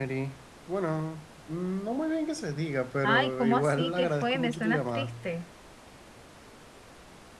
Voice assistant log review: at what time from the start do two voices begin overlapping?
3.0 s

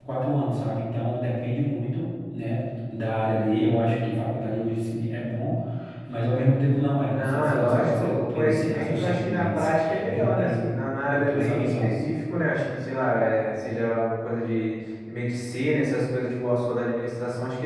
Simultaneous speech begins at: 7.1 s

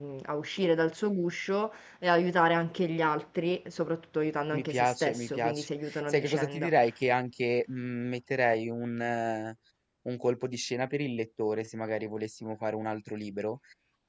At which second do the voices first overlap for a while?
4.5 s

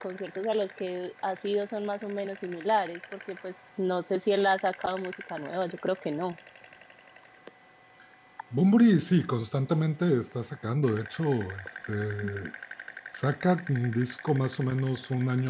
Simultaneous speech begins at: none

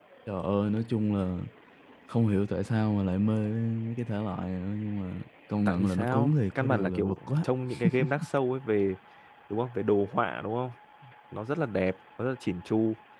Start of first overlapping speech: 5.7 s

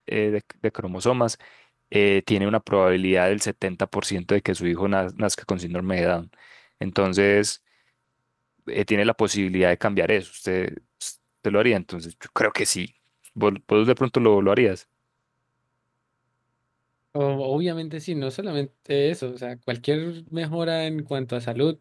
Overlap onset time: none

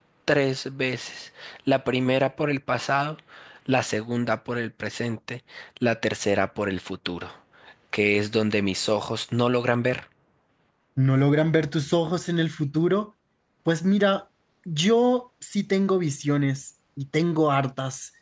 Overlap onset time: none

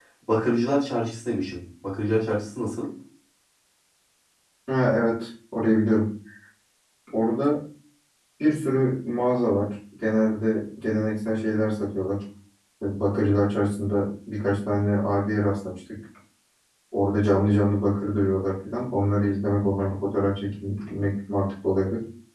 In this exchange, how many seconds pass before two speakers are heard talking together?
none

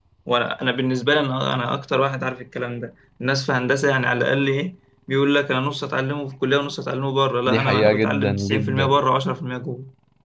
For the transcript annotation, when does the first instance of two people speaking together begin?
7.5 s

